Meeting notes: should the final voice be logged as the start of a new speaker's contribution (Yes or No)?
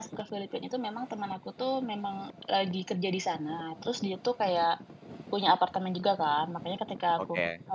No